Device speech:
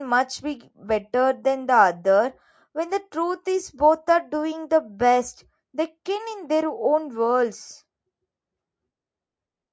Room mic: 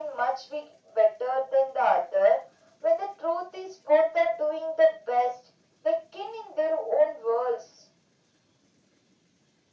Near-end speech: none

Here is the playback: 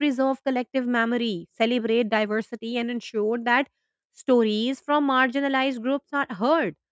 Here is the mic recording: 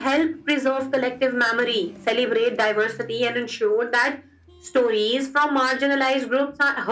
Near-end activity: none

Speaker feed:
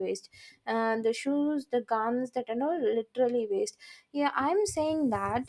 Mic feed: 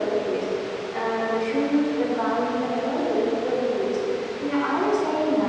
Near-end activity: none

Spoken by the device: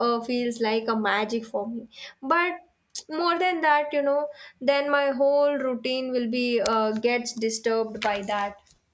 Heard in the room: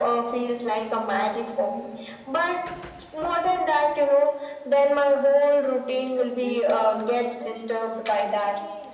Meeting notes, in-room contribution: present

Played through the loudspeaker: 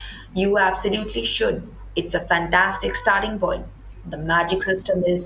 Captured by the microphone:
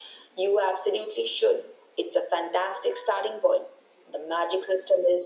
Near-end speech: none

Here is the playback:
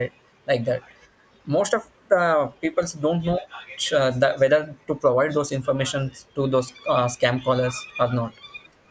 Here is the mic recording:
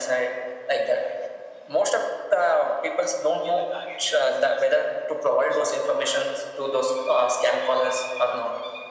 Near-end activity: none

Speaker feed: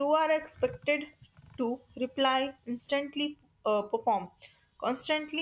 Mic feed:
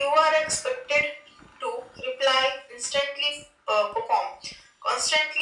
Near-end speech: none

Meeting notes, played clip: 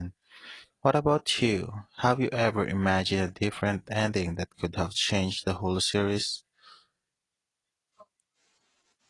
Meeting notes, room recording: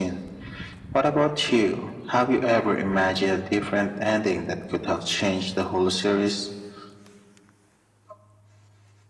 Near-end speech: none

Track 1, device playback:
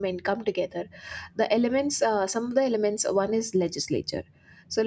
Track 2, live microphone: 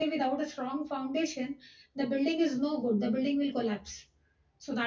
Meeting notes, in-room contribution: present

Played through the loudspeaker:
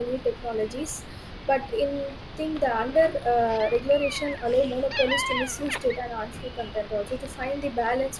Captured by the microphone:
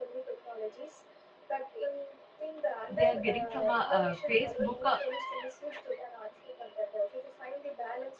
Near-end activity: present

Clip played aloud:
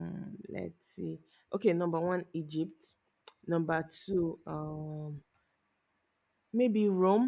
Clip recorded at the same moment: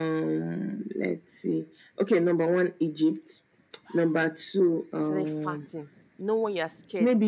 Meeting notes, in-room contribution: present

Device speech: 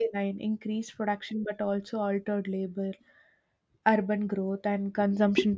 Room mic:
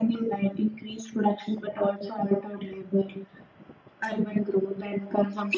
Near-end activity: none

